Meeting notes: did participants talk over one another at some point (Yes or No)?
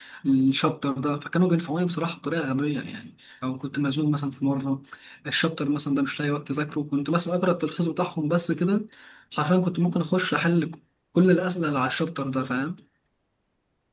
No